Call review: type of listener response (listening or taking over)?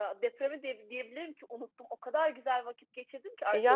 listening